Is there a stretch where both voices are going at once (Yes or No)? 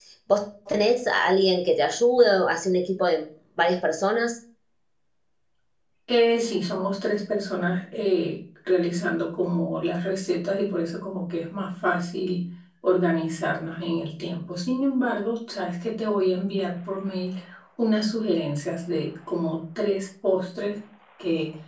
No